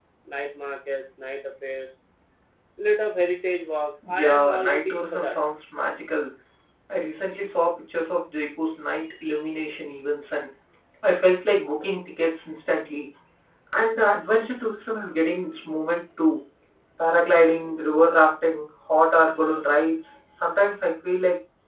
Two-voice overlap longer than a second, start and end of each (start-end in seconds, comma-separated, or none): 4.1-5.4